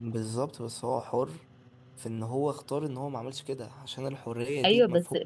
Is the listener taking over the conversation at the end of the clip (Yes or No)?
Yes